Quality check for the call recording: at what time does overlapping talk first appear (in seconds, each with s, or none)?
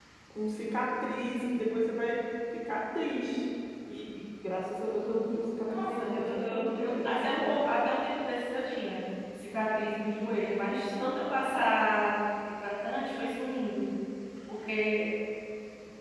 5.7 s